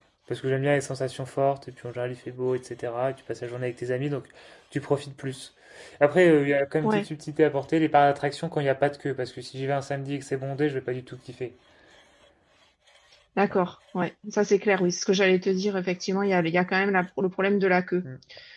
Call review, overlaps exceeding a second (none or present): none